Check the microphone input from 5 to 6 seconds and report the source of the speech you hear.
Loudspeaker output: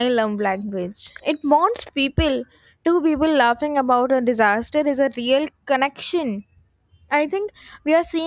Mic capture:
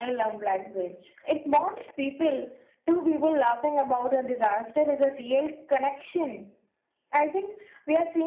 echo only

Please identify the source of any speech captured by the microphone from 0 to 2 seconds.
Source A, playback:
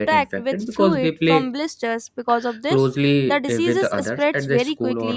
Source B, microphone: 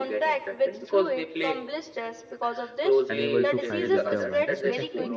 echo only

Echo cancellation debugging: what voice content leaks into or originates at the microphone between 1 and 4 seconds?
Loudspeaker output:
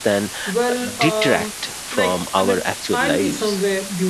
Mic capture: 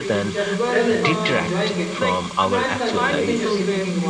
both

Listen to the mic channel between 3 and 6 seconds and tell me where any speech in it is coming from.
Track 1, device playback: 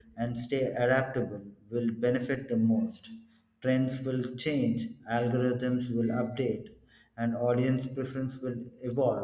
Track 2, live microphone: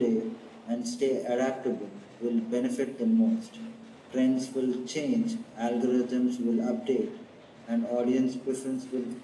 echo only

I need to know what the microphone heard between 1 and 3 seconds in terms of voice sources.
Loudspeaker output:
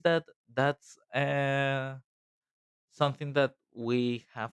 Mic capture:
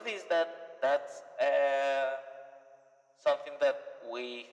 echo only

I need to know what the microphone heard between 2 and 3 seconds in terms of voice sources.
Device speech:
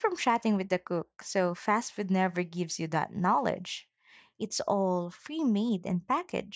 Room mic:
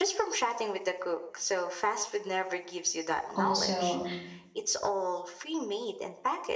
echo only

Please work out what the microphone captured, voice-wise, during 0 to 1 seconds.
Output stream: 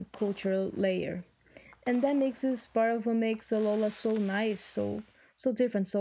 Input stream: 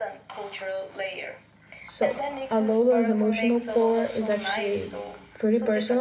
echo only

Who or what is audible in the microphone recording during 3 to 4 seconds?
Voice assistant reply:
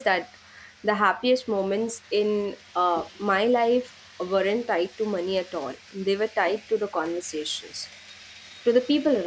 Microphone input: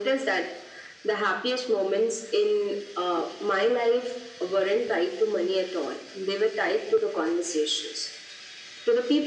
echo only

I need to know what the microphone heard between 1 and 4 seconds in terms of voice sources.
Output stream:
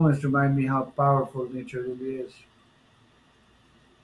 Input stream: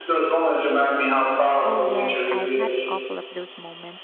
both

